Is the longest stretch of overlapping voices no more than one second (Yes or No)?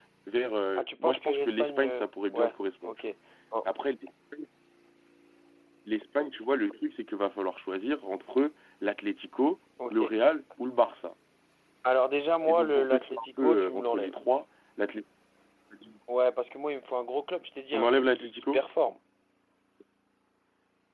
No